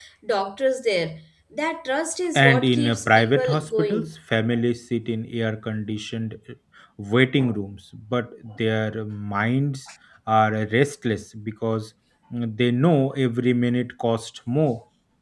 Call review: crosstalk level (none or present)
present